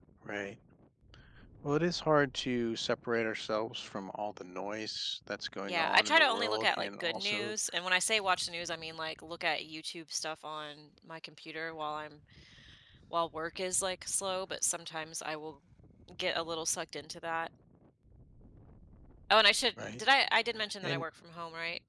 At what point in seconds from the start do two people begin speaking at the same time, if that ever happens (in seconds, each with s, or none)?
5.7 s